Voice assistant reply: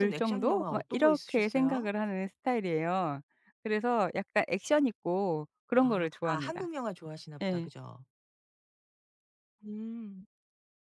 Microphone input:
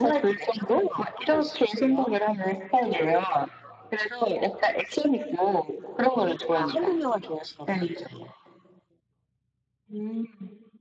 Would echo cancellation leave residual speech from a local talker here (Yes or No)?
No